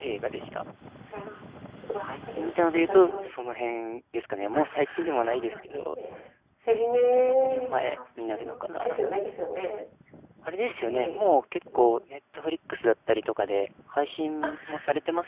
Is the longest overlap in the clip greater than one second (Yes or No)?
Yes